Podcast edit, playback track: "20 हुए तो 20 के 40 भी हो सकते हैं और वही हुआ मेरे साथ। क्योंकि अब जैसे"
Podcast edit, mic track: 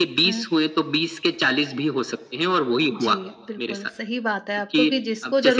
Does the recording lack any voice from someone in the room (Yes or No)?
No